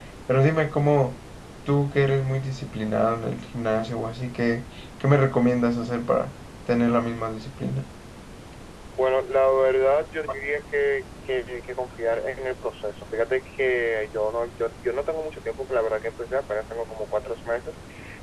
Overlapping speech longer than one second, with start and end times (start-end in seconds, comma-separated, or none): none